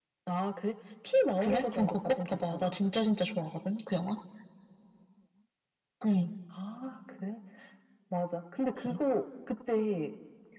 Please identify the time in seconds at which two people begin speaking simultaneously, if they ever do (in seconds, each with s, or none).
1.4 s